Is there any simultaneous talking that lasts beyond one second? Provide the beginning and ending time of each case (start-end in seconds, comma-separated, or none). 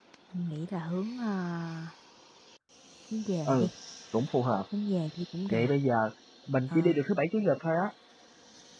none